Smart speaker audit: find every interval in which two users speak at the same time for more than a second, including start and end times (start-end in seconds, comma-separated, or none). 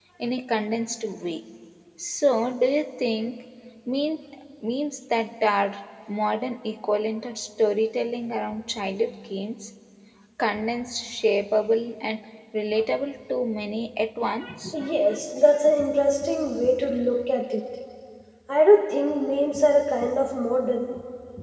none